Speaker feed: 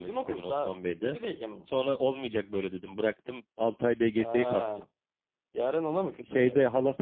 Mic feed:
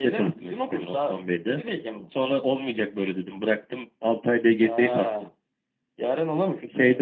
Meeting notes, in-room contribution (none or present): none